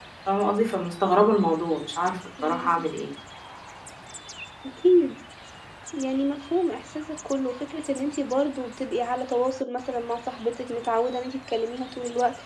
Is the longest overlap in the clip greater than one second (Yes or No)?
No